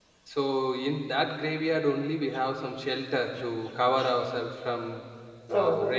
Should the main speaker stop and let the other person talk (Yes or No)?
Yes